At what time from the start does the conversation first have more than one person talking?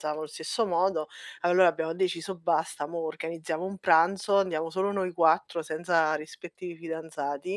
none

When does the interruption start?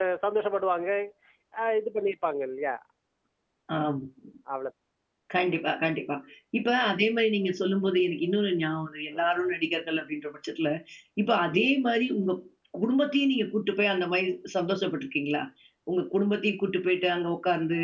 none

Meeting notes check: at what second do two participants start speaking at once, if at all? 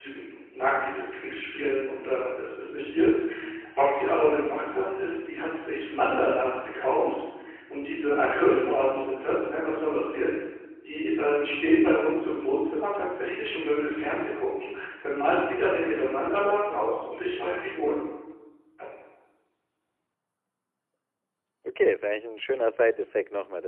none

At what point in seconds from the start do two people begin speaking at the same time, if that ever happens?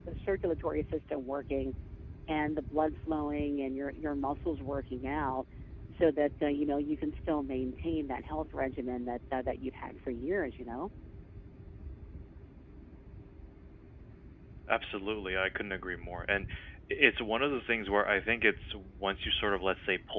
none

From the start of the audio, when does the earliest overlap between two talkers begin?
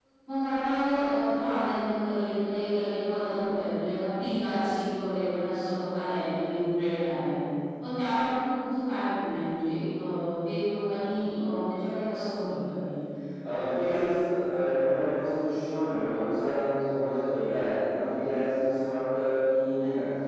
none

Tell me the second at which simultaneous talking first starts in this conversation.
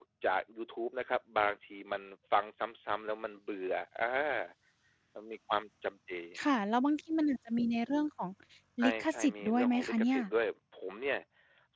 8.8 s

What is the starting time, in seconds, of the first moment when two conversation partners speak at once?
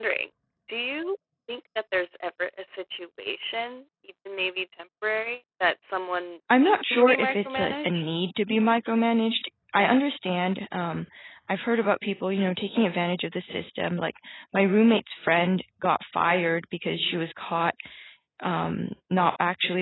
6.5 s

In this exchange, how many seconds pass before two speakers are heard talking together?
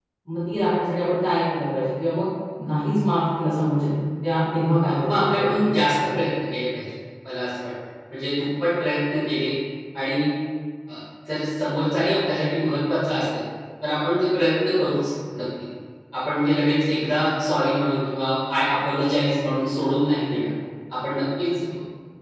5.0 s

